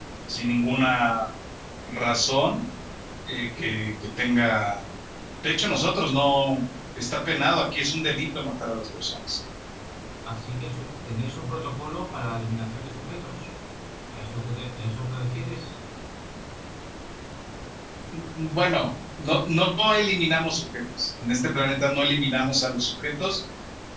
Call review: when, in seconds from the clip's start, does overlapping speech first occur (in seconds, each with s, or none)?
none